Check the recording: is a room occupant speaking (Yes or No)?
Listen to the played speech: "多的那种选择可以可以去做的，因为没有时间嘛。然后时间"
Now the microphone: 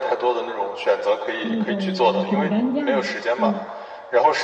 Yes